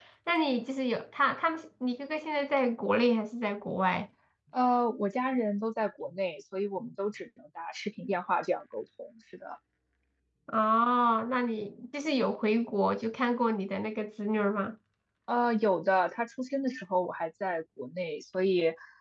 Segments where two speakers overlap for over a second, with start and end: none

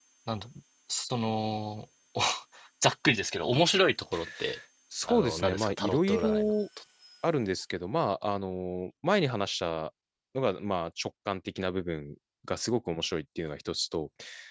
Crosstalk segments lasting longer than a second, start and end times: 5.0-6.5

